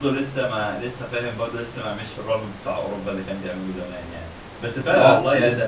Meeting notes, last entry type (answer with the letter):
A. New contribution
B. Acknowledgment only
B